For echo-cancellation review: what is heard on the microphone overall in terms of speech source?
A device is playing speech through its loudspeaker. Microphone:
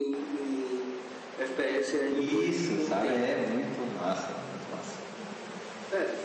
both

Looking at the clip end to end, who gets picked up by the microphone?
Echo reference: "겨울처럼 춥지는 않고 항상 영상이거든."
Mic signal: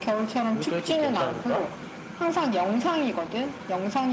both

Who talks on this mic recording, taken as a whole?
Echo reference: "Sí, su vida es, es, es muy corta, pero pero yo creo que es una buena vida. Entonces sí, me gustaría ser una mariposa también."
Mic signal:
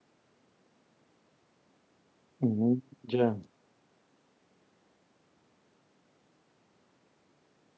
user only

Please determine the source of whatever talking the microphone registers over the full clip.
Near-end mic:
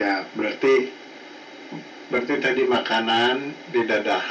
echo only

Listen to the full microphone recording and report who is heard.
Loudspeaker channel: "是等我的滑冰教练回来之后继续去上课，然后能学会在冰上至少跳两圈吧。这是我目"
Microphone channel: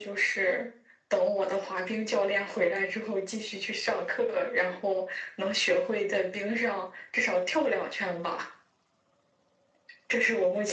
echo only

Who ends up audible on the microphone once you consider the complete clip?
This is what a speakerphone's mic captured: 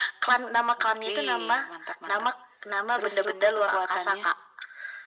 echo only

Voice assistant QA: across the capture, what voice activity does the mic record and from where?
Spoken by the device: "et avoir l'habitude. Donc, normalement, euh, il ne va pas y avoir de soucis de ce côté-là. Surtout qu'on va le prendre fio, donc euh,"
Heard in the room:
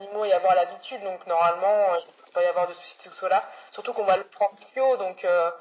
echo only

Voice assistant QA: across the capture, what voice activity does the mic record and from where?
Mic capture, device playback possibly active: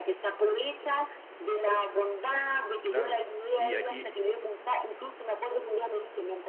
both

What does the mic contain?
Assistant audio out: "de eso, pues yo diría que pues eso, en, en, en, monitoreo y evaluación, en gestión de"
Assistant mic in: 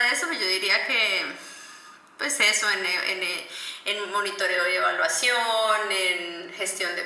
echo only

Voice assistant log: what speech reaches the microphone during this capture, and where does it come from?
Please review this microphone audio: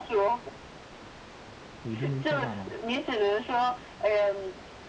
both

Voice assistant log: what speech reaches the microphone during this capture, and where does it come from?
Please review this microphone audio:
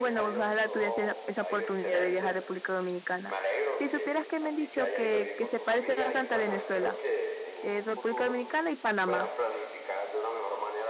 both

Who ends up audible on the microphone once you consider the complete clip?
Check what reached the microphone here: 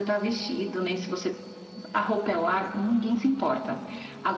echo only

